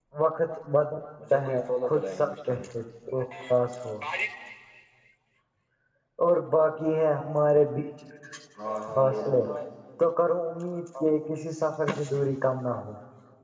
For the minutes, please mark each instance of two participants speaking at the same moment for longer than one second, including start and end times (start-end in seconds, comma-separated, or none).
1.3-2.6